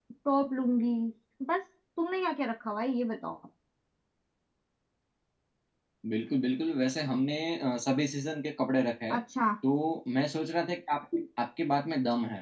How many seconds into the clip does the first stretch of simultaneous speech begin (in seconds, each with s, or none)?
none